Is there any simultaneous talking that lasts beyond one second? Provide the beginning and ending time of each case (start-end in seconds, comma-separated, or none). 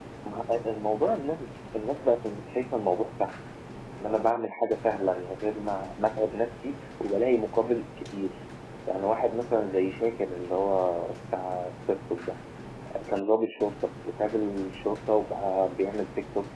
none